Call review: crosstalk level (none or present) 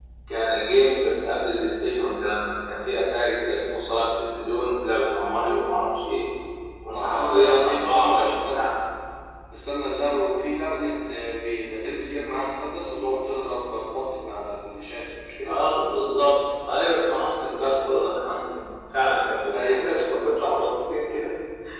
present